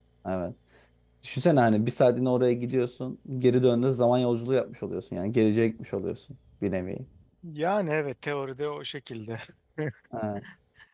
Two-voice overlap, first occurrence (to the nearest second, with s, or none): none